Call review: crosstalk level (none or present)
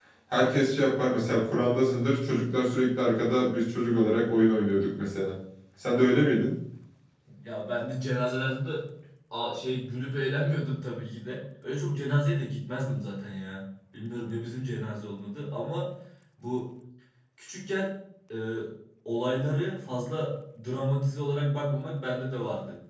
none